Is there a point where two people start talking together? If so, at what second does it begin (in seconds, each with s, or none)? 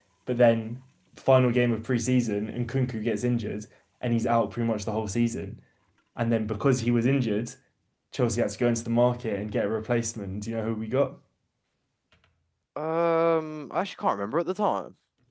none